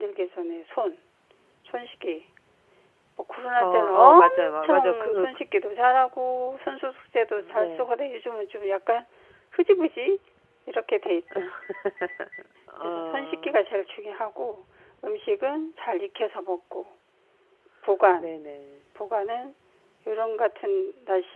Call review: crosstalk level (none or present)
present